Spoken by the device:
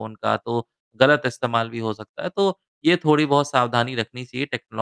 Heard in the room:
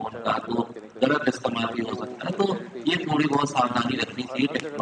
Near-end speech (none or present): present